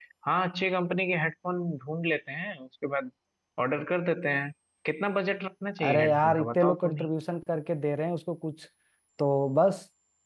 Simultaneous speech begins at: 5.8 s

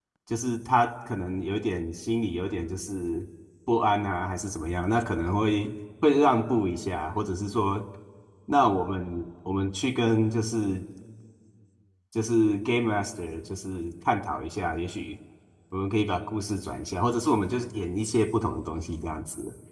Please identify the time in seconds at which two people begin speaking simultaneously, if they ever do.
none

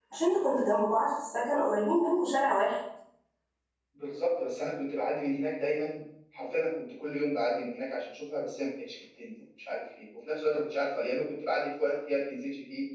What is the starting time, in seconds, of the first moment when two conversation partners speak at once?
none

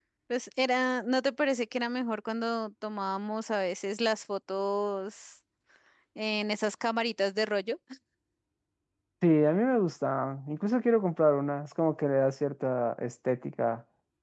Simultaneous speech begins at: none

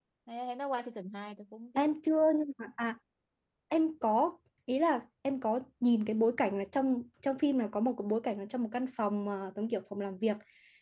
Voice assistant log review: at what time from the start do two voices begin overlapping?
none

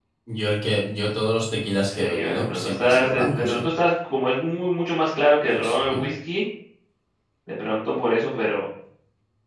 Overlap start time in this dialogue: 1.9 s

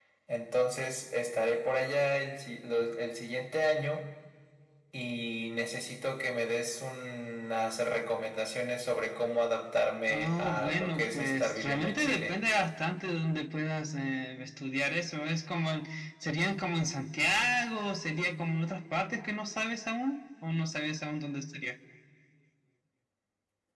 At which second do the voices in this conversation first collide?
10.1 s

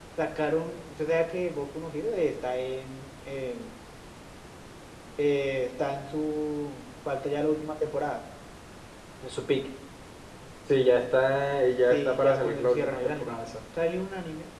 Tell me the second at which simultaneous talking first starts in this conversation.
11.9 s

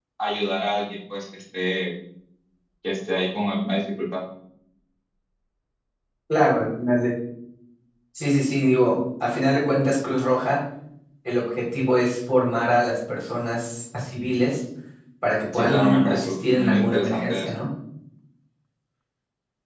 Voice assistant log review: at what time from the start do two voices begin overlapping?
15.5 s

